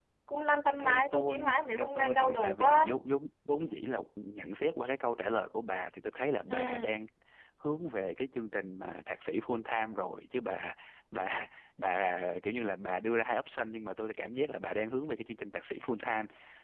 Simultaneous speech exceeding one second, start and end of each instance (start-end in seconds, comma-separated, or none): 0.8-2.9